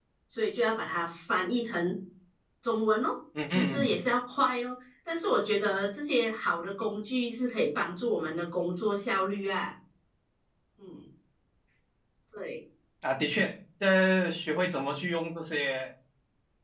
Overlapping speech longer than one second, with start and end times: none

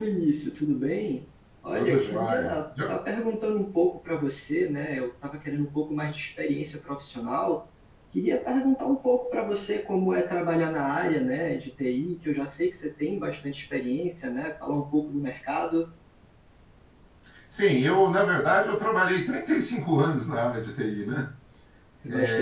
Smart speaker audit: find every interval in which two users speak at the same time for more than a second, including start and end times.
1.7-2.9

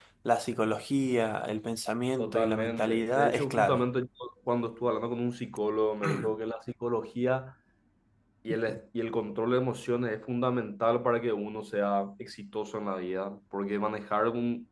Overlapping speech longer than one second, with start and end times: 2.2-3.8

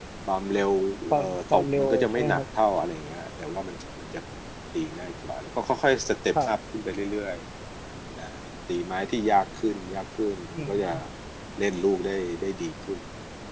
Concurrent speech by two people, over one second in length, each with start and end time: 1.1-2.4

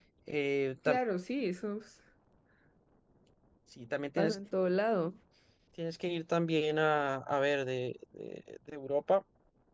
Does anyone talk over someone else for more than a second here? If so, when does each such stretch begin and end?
none

